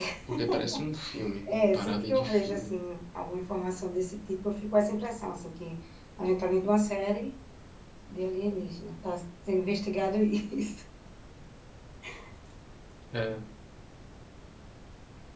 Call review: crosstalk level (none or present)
present